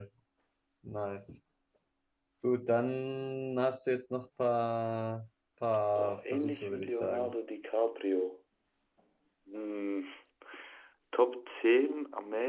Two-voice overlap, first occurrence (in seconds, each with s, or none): 6.0 s